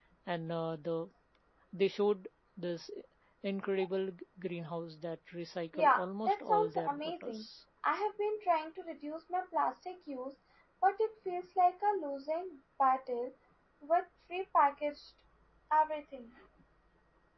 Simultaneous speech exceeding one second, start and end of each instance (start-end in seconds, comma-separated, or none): 5.7-7.4